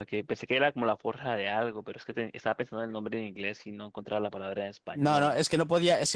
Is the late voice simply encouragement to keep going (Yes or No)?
No